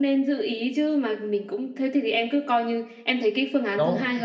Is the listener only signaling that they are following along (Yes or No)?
No